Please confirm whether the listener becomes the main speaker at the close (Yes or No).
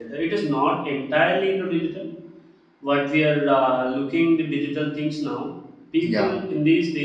No